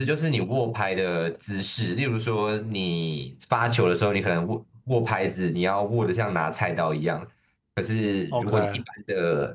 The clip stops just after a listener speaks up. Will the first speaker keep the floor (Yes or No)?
Yes